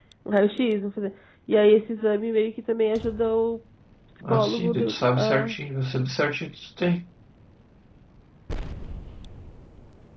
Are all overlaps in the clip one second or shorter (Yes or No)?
No